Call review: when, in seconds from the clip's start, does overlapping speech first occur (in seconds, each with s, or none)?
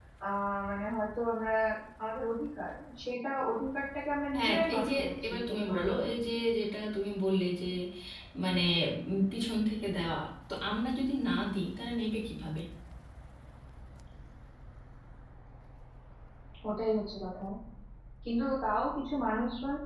4.3 s